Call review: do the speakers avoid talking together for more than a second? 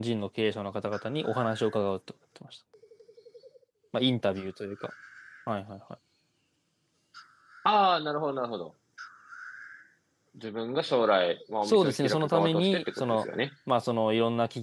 No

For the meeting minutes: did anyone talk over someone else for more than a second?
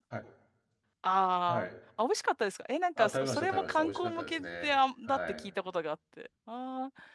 Yes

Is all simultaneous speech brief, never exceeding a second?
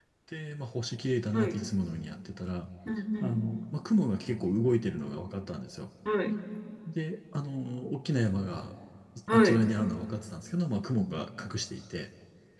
Yes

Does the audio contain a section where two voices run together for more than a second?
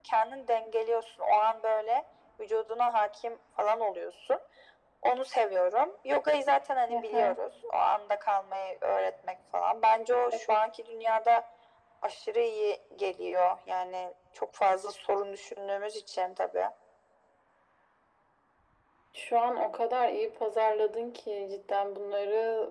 No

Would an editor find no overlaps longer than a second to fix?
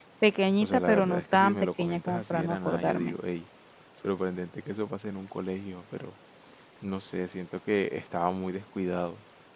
No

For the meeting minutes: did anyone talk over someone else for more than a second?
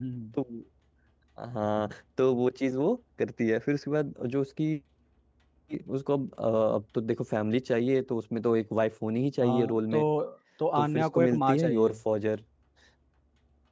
Yes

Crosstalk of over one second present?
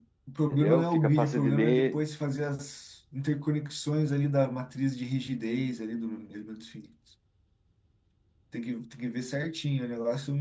Yes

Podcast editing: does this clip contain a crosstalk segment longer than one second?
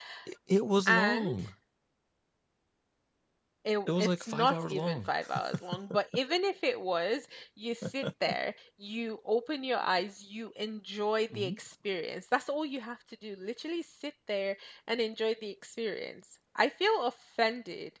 Yes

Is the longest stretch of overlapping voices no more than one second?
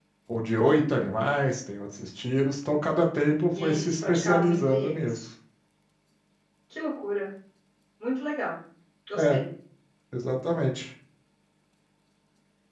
No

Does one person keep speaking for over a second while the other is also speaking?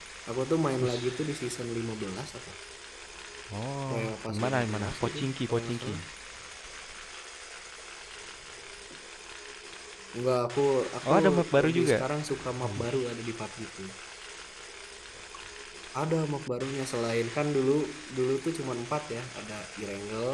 Yes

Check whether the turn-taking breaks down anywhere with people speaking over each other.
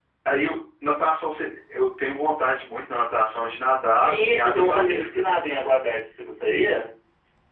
Yes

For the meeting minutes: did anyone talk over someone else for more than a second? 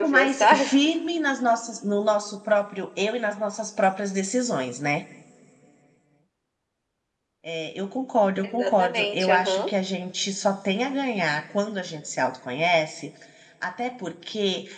Yes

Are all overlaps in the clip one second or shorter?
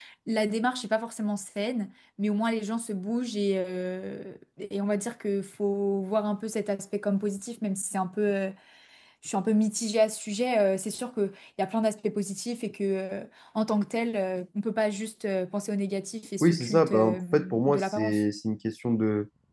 No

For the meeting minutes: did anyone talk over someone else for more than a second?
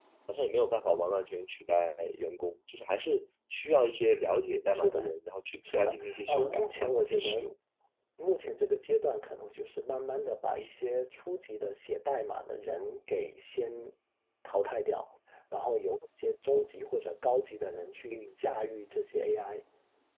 Yes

